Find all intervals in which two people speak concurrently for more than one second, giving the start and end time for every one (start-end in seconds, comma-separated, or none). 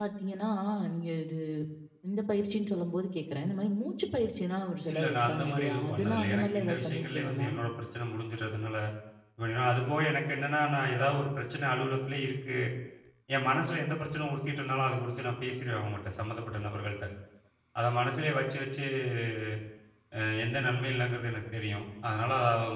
4.9-7.5